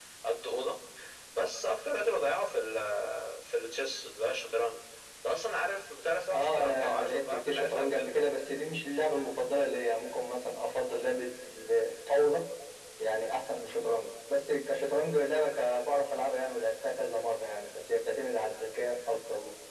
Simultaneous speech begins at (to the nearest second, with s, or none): 6 s